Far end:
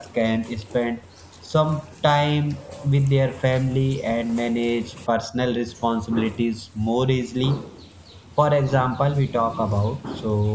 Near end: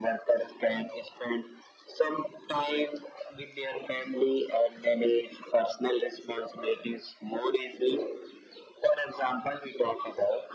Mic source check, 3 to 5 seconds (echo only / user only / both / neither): echo only